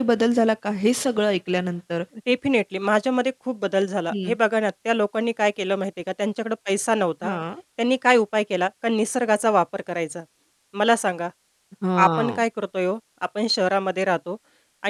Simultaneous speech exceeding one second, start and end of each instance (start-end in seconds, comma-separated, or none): none